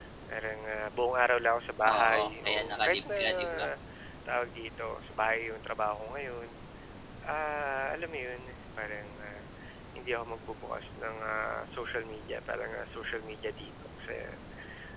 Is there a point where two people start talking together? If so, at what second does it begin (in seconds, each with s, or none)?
1.8 s